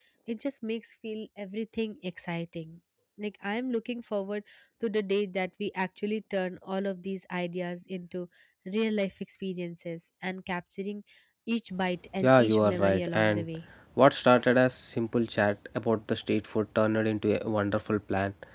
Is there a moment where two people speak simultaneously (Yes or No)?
Yes